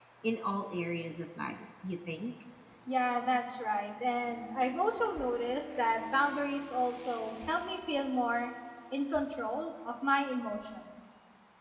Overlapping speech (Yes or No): No